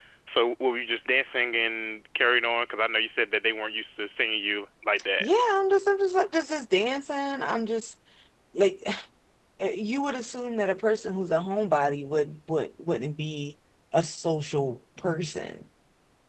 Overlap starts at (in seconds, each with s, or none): none